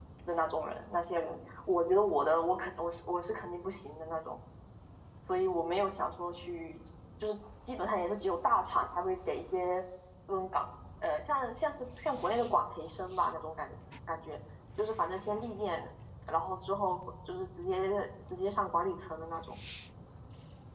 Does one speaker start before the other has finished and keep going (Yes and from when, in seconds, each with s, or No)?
No